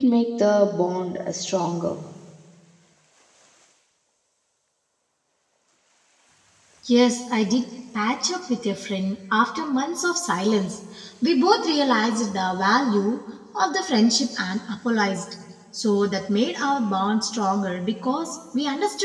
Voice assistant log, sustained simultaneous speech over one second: none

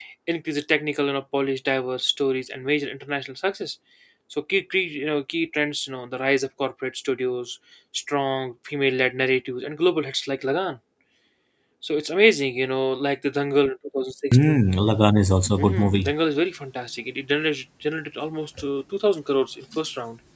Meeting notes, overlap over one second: none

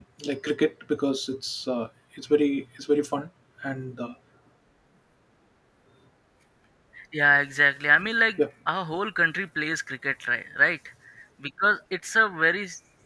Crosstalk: none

